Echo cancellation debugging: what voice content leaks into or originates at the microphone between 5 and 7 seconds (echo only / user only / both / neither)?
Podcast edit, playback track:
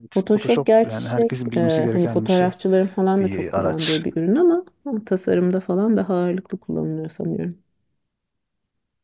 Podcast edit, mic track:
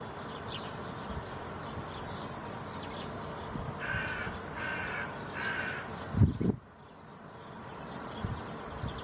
neither